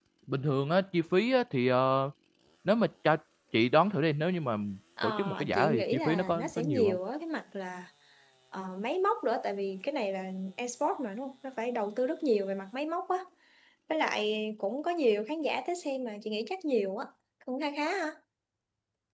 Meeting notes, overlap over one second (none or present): present